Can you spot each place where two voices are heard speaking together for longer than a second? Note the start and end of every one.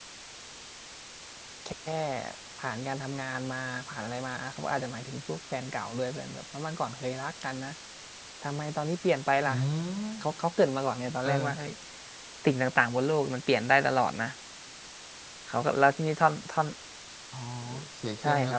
none

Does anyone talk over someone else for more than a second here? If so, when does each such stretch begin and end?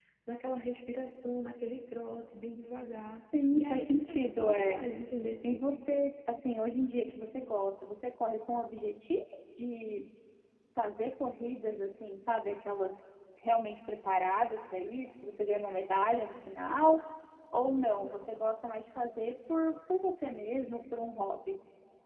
3.5-4.8

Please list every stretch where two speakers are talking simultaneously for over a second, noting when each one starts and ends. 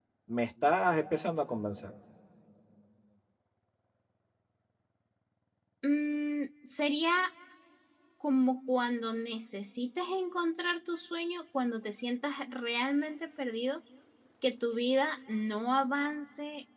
none

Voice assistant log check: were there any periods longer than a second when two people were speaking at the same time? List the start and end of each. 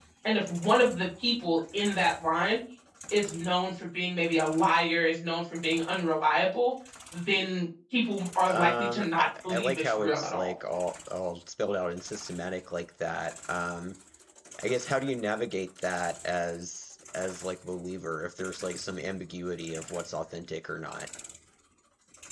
8.5-10.5

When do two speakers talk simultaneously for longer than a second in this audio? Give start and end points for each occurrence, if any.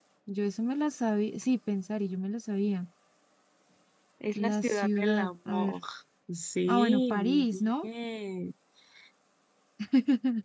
4.3-5.8, 6.7-7.9

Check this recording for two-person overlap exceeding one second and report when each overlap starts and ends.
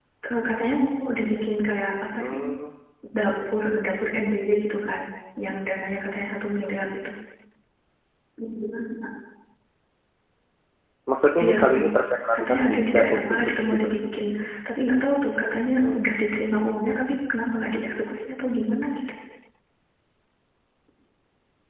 12.3-13.9

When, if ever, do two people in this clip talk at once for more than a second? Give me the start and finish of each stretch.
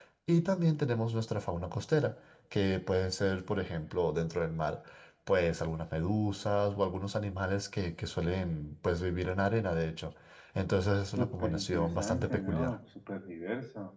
11.2-12.8

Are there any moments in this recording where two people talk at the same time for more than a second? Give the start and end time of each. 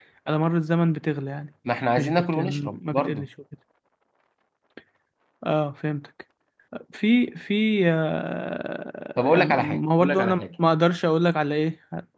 2.0-3.3, 9.2-10.5

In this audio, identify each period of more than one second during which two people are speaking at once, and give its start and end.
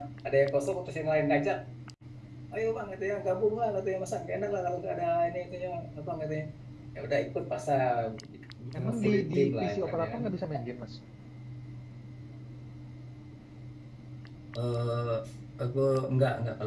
9.0-10.2

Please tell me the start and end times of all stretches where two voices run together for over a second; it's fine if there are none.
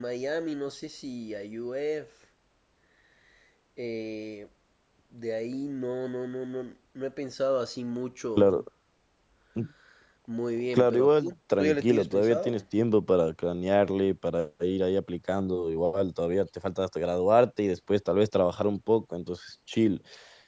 10.7-12.6

